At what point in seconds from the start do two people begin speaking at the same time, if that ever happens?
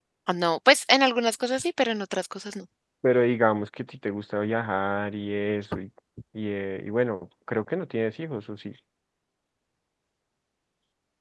none

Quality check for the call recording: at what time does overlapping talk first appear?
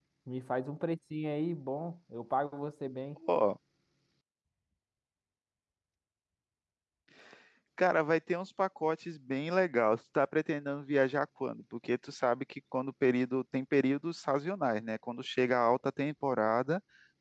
none

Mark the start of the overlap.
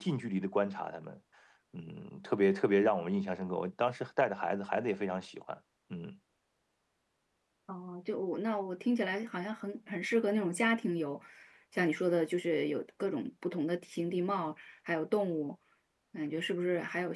none

